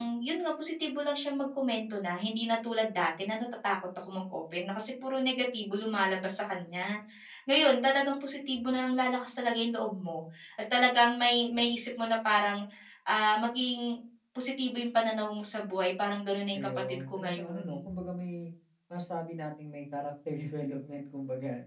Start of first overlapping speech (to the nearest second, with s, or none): 17 s